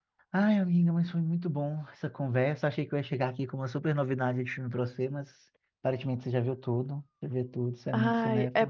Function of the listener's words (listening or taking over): taking over